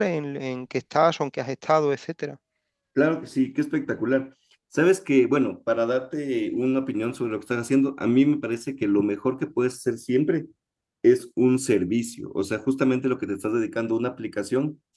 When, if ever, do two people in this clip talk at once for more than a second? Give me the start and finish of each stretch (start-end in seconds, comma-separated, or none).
none